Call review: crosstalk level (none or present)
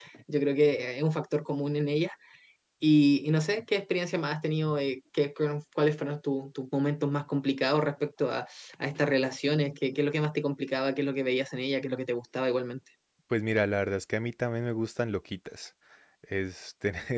none